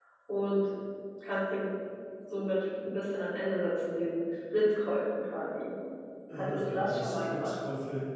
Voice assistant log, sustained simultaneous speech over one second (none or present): present